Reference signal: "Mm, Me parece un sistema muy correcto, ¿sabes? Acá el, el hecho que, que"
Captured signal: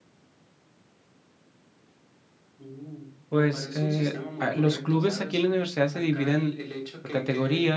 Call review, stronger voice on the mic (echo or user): user